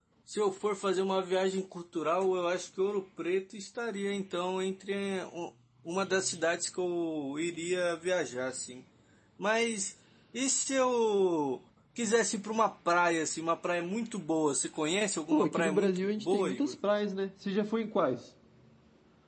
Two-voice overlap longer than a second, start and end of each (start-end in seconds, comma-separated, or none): 15.3-16.8